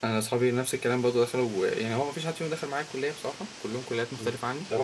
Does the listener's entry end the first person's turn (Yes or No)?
Yes